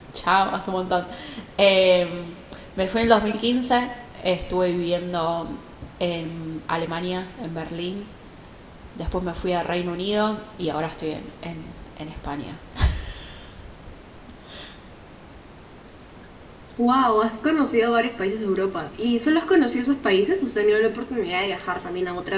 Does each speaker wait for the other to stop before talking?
Yes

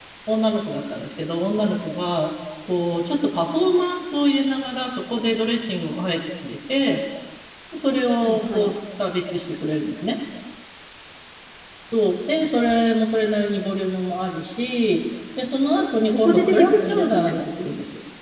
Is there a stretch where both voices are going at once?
Yes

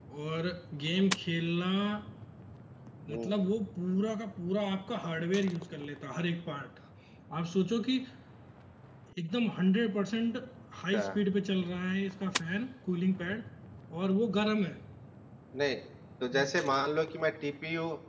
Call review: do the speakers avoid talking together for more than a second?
Yes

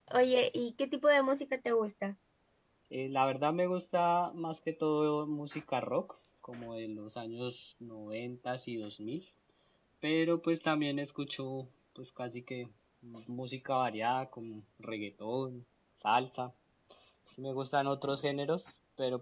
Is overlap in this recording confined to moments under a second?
Yes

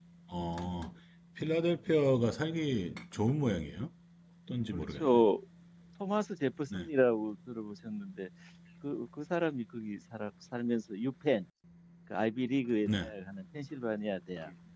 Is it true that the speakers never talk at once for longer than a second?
Yes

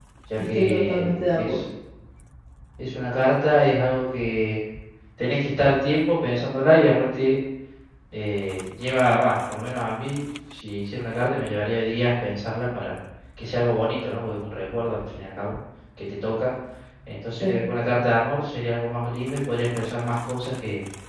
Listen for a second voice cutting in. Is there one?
Yes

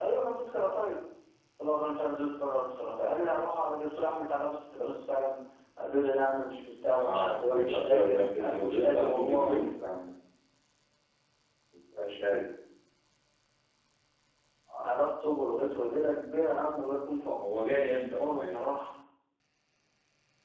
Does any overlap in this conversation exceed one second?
Yes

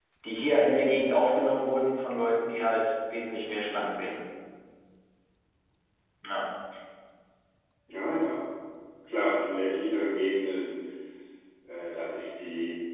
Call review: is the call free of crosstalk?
Yes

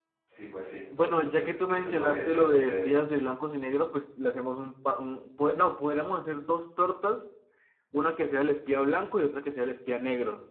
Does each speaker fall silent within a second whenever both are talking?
No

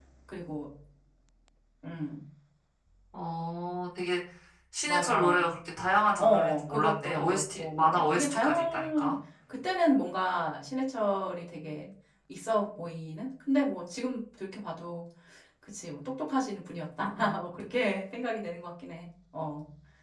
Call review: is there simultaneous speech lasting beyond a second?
Yes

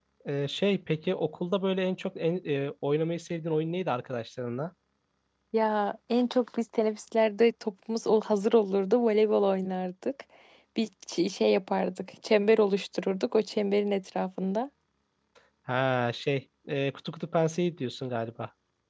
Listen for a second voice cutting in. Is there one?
No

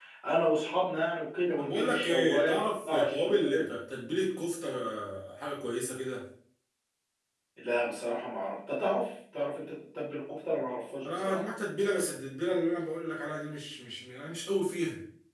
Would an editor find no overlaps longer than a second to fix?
No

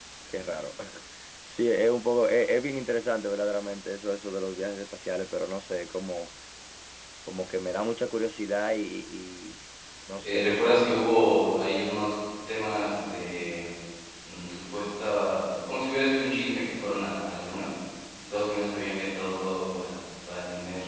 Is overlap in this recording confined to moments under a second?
Yes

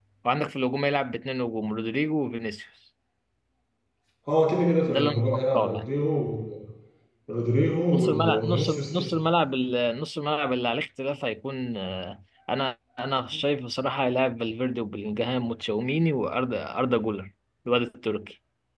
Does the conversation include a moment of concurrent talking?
Yes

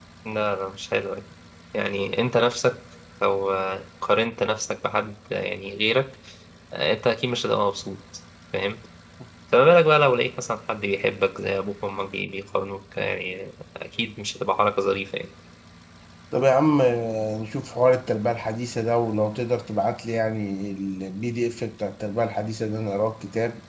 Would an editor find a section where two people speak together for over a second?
No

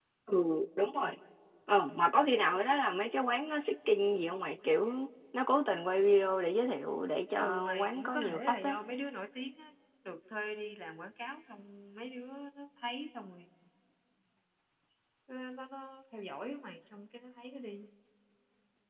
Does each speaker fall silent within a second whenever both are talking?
No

